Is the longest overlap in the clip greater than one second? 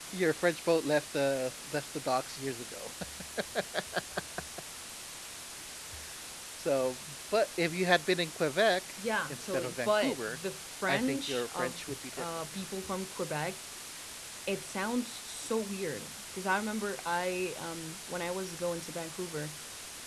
Yes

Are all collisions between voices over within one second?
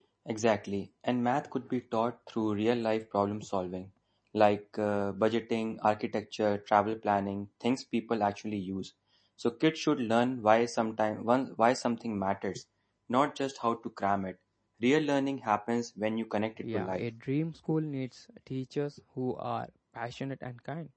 Yes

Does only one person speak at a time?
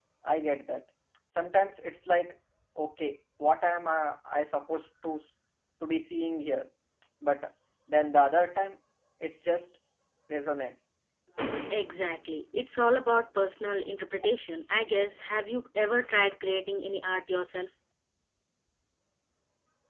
Yes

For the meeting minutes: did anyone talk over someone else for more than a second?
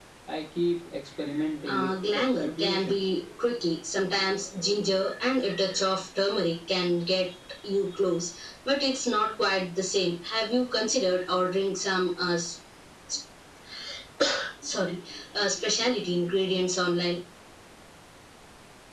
Yes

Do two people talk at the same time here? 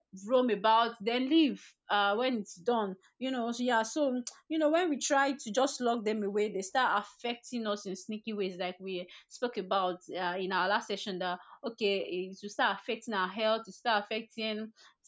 No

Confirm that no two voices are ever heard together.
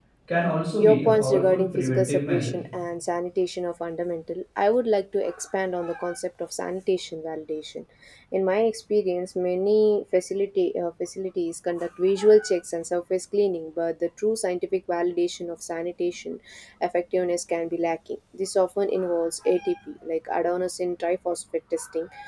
No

